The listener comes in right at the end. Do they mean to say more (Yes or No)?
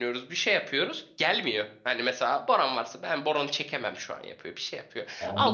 Yes